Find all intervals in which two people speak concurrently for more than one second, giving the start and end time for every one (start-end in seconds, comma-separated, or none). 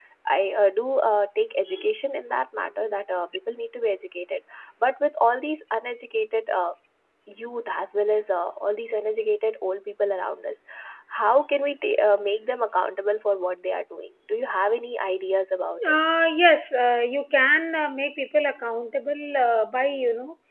none